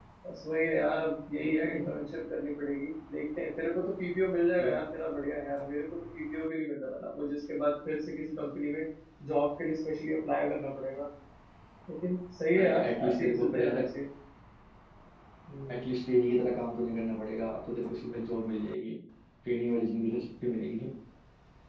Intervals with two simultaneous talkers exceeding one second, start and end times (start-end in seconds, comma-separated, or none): 12.6-13.8